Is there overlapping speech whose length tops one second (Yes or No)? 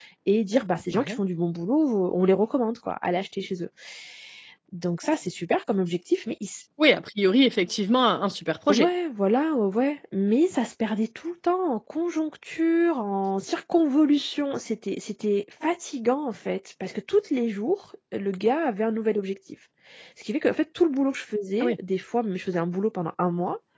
No